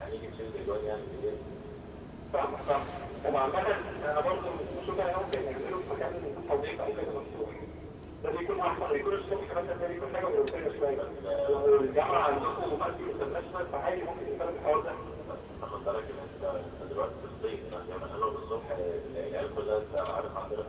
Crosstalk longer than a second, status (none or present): none